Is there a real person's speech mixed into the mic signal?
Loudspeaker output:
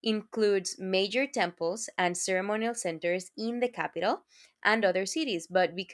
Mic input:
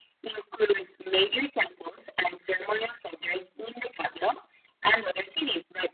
No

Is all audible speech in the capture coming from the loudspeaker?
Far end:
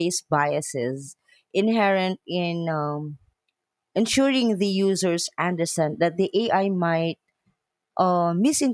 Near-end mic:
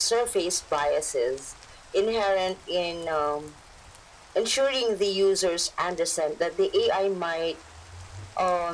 Yes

